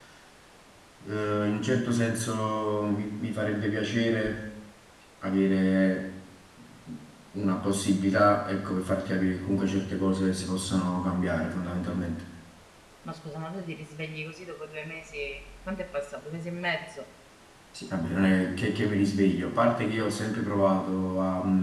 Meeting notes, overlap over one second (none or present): none